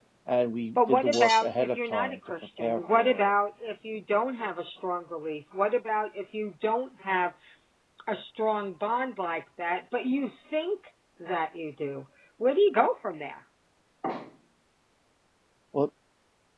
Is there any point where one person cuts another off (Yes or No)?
Yes